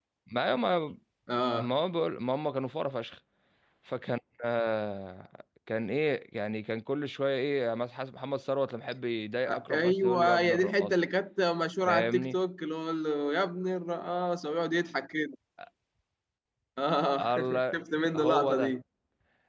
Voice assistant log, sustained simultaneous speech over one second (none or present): present